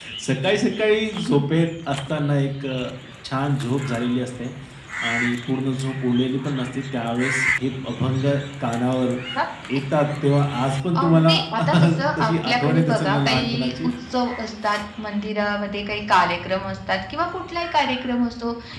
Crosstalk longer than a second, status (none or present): present